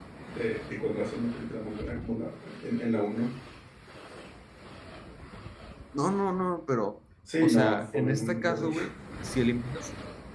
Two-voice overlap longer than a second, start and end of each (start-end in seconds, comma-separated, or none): 7.4-8.8